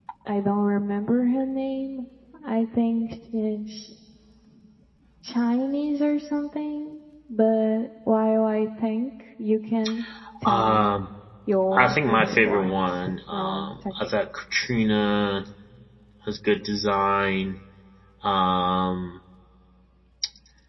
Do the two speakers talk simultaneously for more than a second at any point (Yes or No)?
Yes